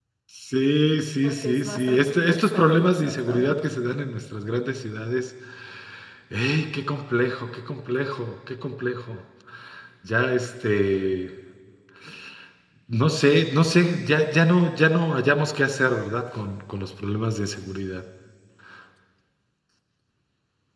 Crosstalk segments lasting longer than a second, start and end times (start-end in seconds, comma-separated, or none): 1.2-3.5